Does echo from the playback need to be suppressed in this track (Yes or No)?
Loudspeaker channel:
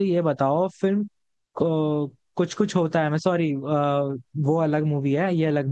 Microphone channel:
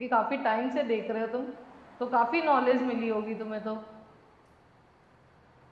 No